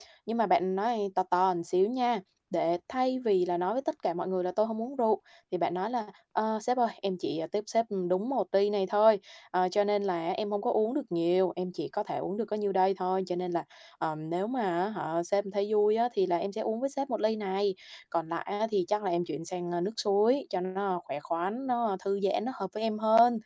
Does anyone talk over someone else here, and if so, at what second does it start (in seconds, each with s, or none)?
none